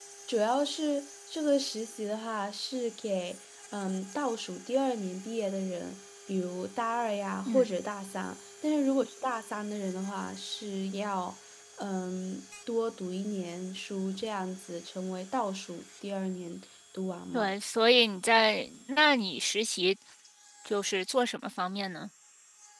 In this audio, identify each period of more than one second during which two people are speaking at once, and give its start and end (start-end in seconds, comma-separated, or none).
none